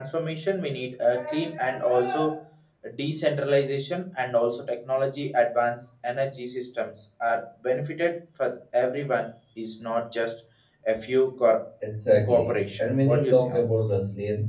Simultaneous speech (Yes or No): Yes